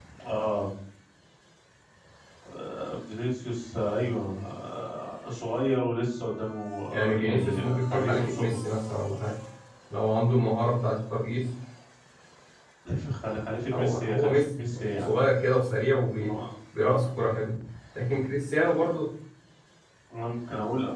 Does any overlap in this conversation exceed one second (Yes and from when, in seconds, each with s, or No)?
Yes, from 6.9 s